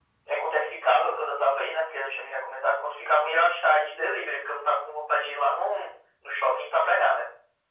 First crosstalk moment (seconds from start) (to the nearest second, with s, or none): none